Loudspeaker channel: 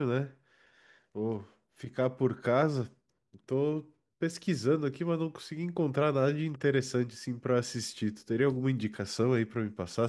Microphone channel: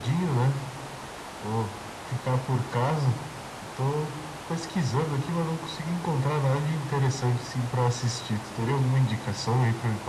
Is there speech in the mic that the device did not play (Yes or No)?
No